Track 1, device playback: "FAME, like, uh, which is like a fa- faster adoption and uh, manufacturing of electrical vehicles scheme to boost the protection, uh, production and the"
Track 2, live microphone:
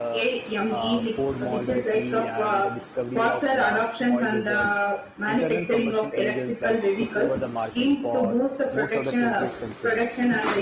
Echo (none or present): present